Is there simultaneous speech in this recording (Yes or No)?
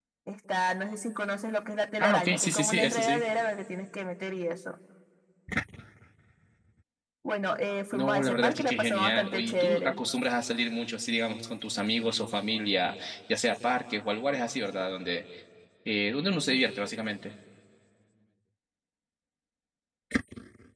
Yes